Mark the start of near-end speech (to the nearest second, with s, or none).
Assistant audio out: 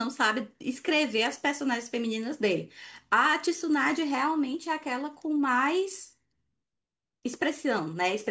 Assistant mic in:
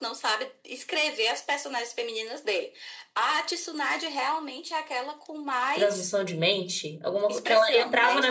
6 s